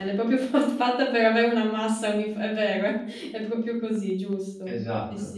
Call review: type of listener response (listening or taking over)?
taking over